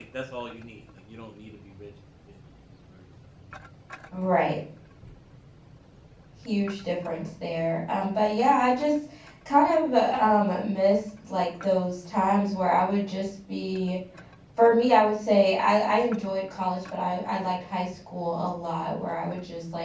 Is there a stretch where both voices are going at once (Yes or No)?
No